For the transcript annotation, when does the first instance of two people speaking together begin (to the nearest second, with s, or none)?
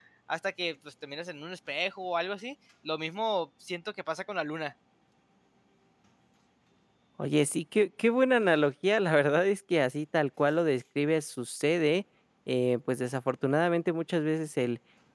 none